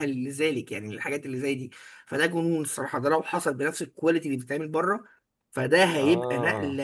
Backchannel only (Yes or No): Yes